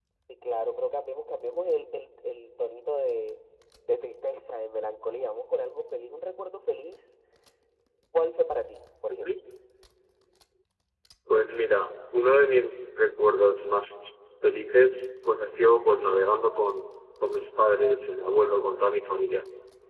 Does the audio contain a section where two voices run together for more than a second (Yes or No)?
No